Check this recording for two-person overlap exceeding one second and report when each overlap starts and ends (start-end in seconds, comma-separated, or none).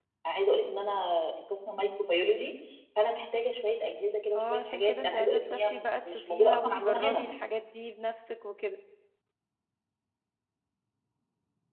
4.4-7.2